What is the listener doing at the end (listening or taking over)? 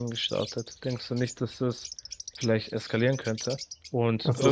listening